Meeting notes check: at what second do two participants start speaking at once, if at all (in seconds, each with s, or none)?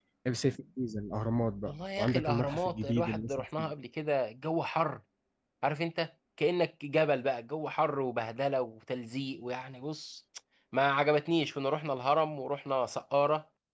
1.6 s